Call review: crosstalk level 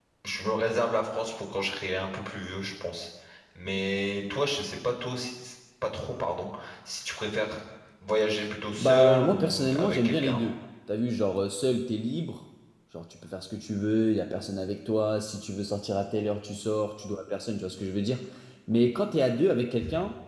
present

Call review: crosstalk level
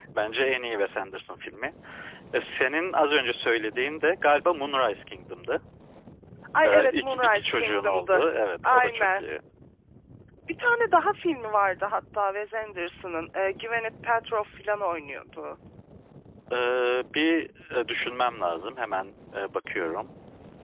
present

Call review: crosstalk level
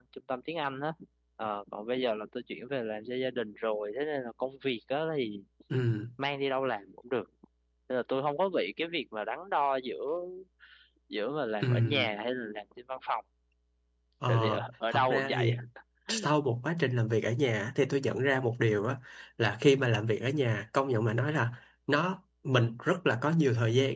present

